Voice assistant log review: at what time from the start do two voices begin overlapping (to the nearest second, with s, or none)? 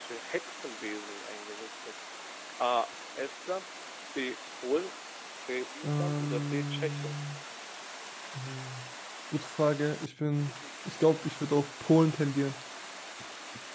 6 s